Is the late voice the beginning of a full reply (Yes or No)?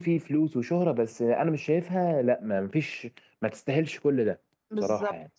Yes